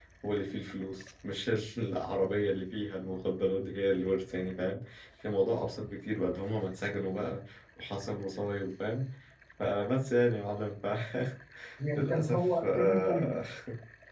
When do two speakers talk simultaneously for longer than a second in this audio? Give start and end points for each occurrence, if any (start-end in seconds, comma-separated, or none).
12.0-13.4